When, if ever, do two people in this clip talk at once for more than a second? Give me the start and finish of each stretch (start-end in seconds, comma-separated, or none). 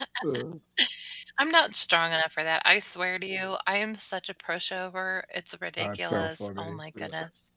5.8-7.0